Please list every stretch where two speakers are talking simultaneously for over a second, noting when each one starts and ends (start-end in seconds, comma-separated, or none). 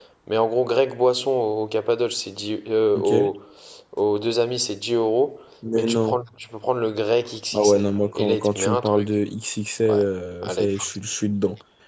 7.5-9.1